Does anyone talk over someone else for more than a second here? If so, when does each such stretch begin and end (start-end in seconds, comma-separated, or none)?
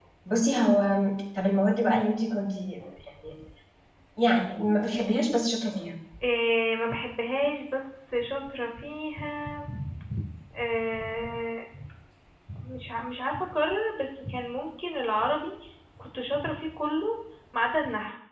none